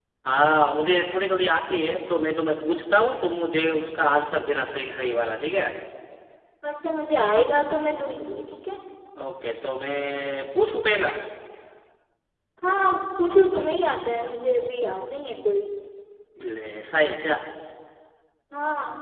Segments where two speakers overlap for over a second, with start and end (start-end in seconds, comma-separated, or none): none